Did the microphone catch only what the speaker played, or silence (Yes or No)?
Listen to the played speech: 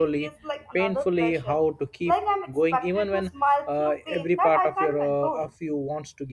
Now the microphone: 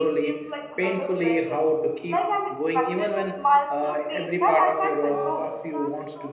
No